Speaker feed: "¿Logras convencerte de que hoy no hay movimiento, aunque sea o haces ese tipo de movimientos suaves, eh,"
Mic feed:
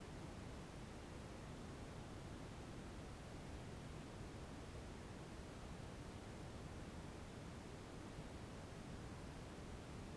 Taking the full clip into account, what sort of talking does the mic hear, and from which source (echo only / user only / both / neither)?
neither